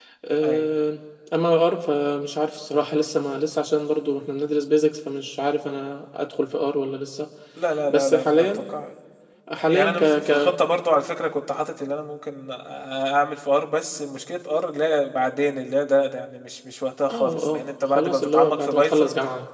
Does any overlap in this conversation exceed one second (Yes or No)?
Yes